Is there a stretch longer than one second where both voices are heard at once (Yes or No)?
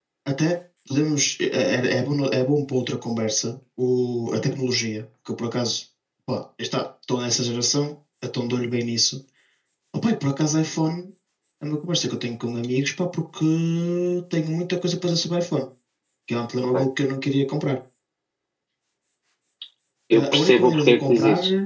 Yes